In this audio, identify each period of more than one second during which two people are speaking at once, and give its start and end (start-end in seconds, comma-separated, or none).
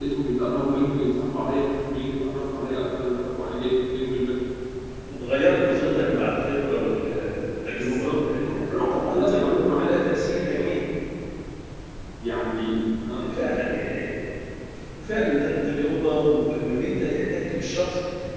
7.7-9.9